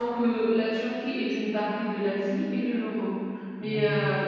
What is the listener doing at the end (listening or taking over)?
listening